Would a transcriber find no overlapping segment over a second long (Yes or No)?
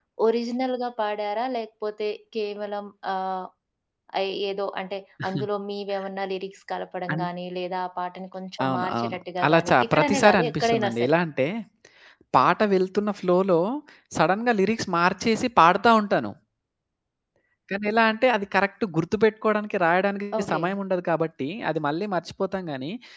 No